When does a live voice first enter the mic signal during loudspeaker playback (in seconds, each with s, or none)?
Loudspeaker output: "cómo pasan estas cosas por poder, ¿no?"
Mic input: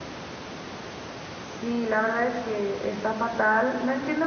1.4 s